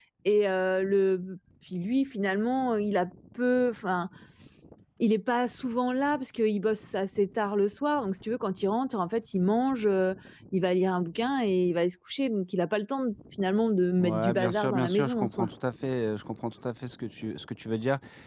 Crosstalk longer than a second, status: present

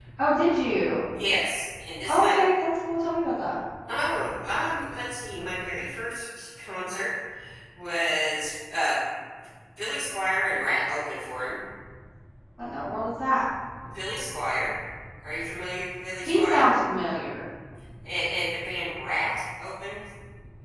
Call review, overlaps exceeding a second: none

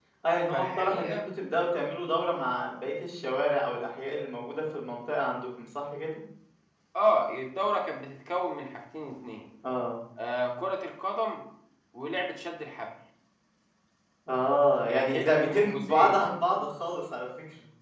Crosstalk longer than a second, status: present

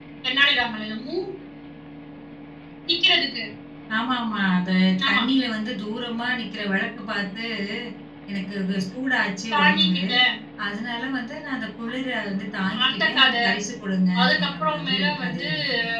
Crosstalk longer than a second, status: present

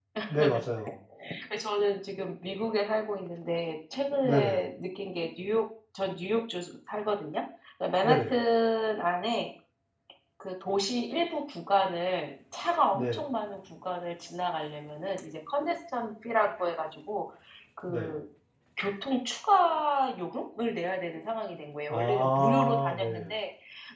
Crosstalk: present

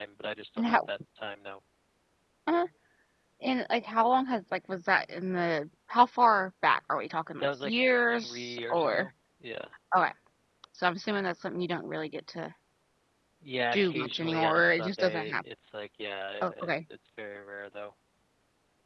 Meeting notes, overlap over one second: present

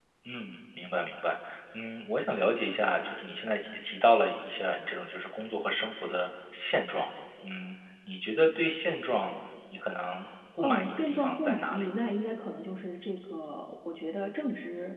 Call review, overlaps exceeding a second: present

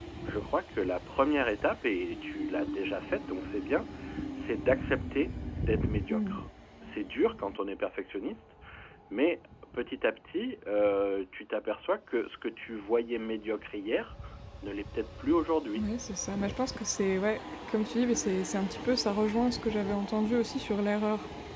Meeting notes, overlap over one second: none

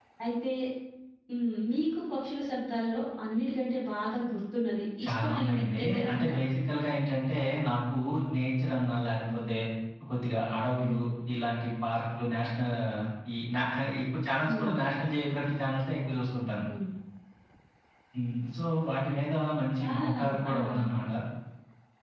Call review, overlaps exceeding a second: present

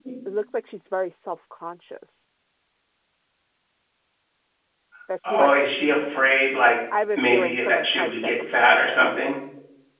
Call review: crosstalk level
present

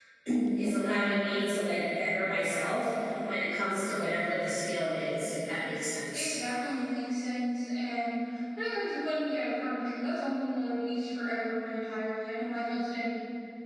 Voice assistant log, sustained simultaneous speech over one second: none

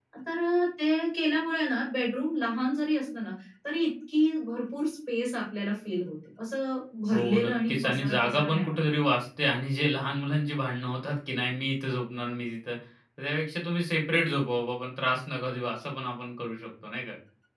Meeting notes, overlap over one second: present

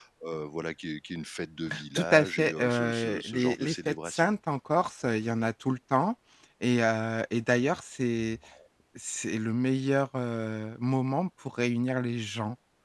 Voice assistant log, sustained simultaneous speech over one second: present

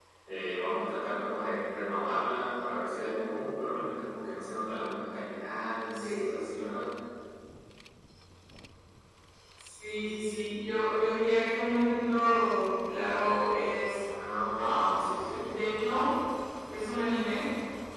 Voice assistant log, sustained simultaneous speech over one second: none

